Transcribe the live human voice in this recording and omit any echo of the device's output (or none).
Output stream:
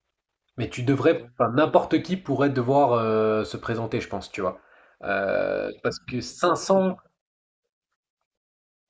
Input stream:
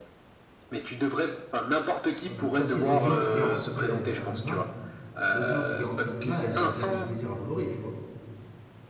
Ouais, mais après aussi, l'audience que garantissait euh, Hanouna, l'audience que garantissait Hanouna, elle devait bien faire plaisir à Bolloré, tu vois.